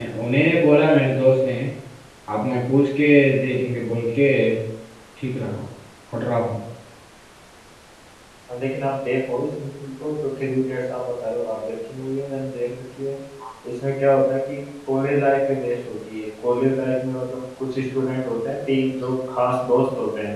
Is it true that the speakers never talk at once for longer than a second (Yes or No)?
Yes